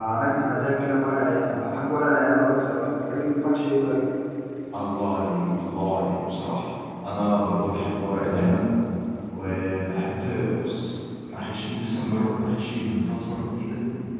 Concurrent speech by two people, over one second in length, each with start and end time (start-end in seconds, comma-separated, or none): none